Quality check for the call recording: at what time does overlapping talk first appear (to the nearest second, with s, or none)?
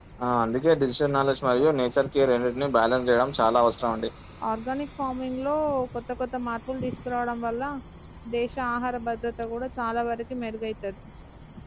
none